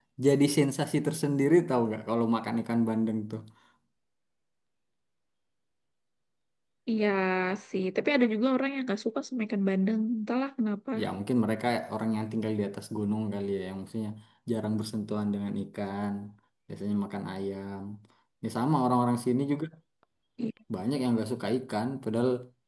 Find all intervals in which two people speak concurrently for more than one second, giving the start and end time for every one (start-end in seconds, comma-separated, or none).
none